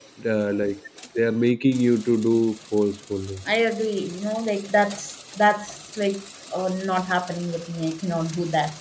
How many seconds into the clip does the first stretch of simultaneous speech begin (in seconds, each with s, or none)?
none